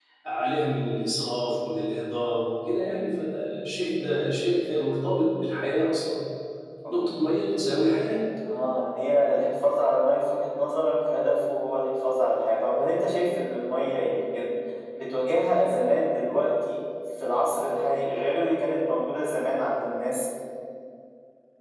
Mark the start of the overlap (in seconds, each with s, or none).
none